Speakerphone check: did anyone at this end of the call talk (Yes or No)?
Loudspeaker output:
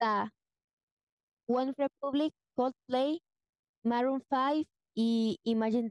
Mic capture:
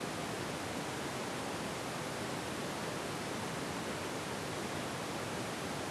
No